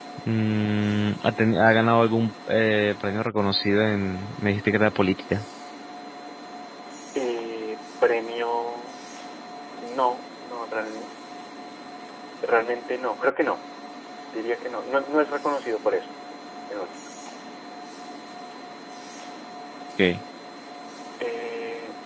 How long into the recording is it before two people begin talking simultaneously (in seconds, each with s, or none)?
none